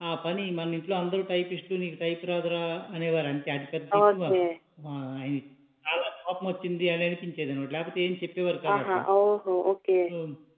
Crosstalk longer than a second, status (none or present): none